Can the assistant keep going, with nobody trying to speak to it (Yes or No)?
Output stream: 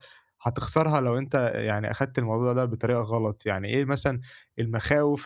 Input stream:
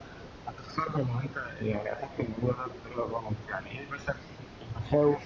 Yes